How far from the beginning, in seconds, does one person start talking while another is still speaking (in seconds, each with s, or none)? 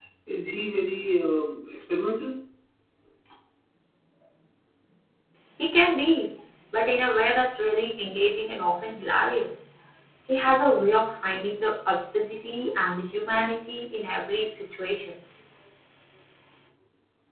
none